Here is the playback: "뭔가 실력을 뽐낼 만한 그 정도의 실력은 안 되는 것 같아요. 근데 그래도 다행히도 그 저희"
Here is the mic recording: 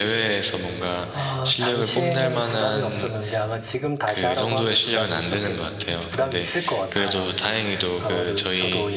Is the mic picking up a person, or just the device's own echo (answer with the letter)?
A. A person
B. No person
A